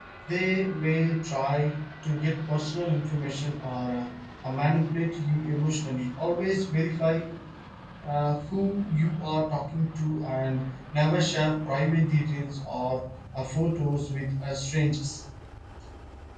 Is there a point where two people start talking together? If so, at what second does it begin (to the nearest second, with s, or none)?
none